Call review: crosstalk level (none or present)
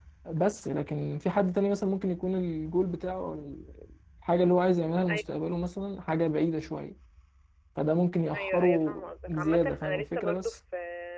present